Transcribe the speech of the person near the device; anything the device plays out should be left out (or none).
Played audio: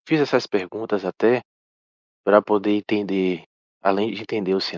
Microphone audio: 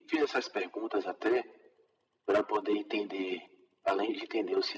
none